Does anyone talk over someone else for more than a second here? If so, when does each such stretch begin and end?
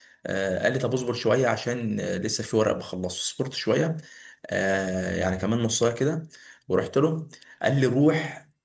none

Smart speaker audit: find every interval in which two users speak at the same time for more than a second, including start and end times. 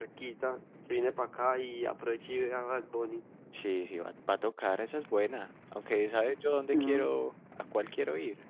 none

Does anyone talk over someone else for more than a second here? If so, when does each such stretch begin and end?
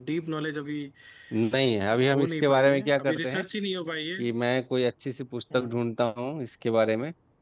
2.1-3.4

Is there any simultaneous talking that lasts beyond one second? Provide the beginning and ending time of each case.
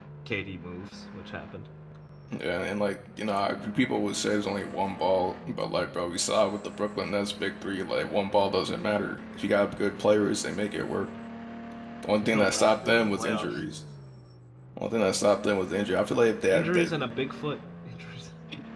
12.2-13.6

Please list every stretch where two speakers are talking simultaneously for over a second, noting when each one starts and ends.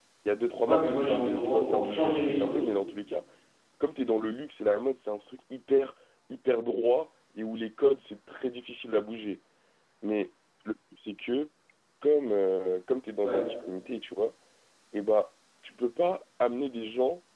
0.7-2.7

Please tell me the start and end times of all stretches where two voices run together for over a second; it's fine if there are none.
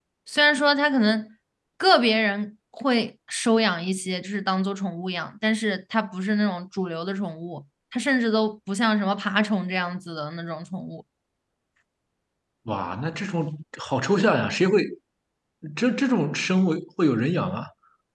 none

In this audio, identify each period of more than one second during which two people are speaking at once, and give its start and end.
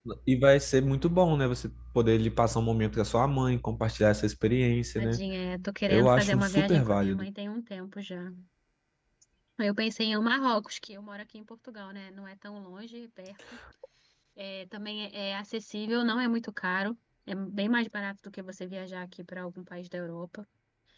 5.9-7.3

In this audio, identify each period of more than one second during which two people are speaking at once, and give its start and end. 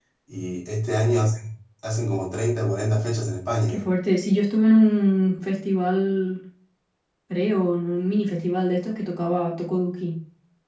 none

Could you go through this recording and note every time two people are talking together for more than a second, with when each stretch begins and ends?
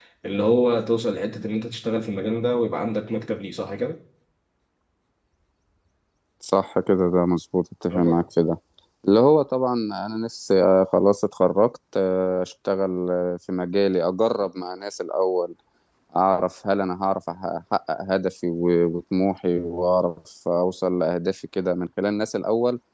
none

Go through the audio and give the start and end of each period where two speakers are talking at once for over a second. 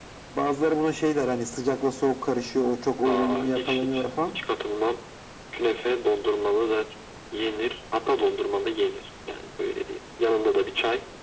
3.0-4.3

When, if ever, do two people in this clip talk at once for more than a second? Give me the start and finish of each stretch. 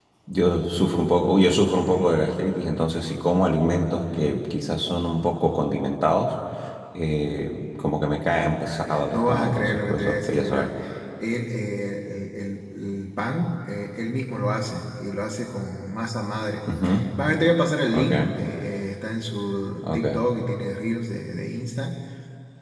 9.1-10.7

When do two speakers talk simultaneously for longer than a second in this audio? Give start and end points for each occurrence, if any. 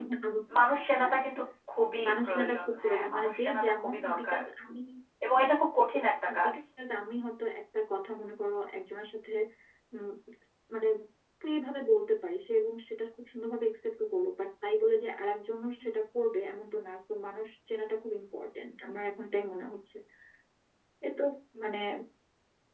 2.1-4.4

